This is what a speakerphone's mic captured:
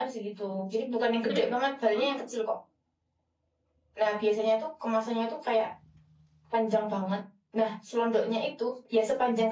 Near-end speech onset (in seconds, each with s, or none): 1.3 s